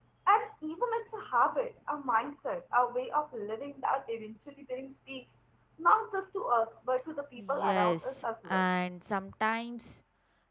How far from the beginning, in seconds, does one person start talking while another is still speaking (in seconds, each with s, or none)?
7.4 s